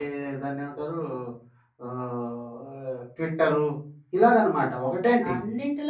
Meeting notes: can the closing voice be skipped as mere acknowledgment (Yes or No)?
No